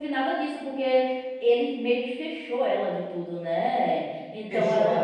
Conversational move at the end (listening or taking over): taking over